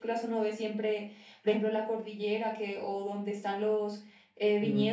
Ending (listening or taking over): listening